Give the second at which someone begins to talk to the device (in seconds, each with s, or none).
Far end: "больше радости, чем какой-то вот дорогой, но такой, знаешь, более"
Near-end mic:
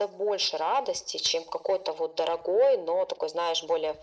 none